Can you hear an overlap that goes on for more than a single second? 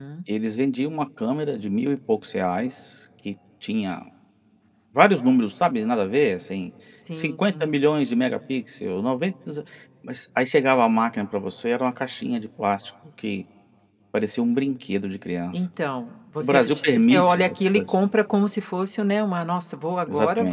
Yes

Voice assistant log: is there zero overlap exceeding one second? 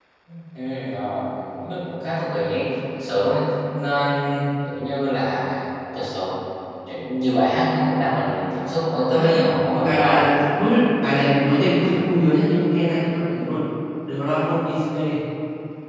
Yes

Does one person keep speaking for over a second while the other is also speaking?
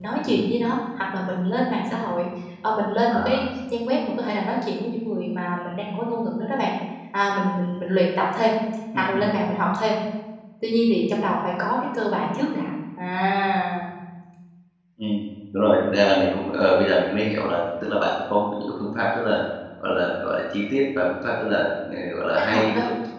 No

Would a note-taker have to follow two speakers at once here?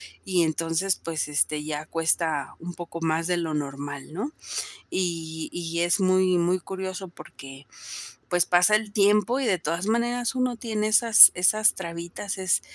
No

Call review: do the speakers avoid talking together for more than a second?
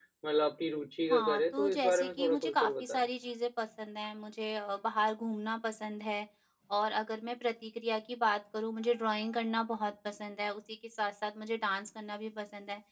No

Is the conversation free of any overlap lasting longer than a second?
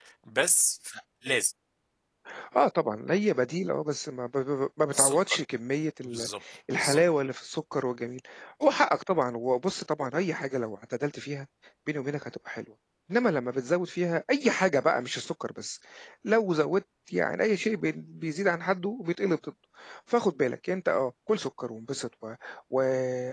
Yes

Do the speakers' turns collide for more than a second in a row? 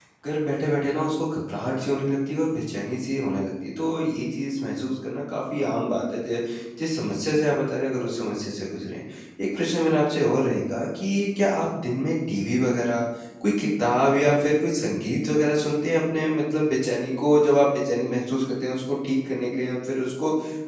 No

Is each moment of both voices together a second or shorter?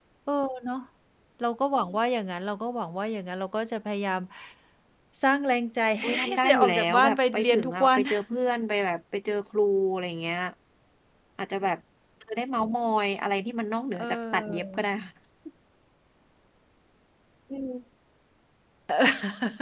No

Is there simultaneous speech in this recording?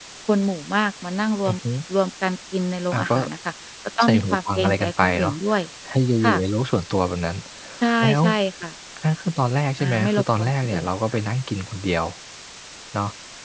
Yes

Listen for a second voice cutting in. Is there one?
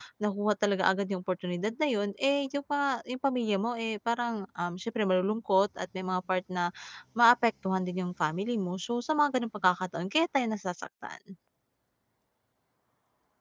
No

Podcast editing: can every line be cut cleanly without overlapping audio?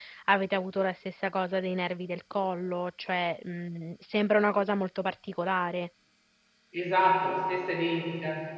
Yes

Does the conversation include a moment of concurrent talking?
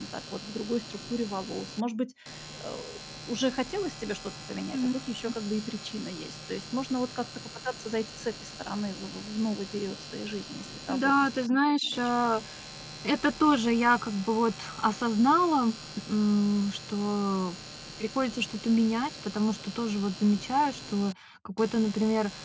Yes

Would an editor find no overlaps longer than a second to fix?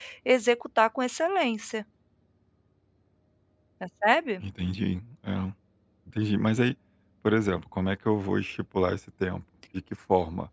Yes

